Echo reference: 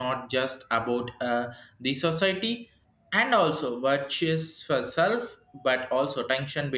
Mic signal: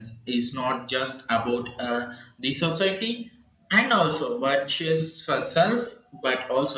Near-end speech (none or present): none